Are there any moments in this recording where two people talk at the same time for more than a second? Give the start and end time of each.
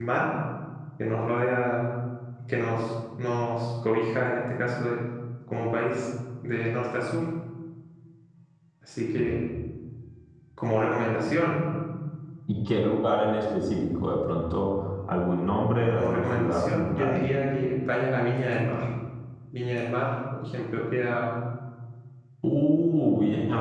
15.9-17.2

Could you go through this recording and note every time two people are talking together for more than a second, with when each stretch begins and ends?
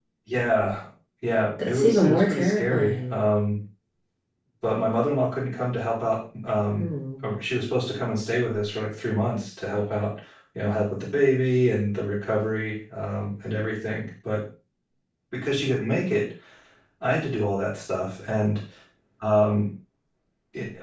1.6-3.2

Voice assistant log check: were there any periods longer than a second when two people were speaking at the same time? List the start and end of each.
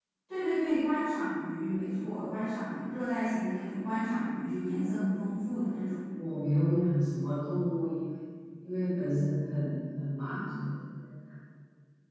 none

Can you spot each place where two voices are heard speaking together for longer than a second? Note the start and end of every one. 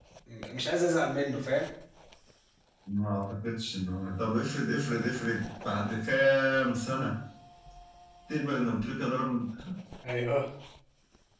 none

